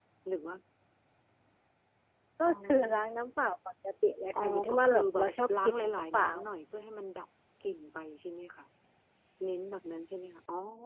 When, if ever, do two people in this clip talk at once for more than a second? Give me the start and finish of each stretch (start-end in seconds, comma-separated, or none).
4.4-6.3